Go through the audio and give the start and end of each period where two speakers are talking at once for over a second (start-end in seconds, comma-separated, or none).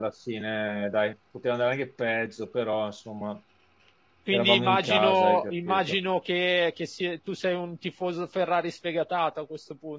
4.3-6.0